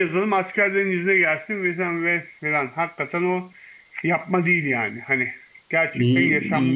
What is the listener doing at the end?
taking over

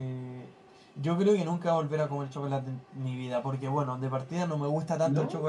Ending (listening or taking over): listening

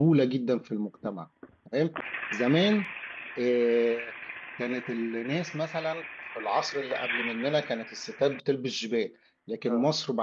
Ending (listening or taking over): listening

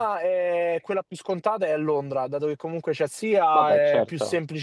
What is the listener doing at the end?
listening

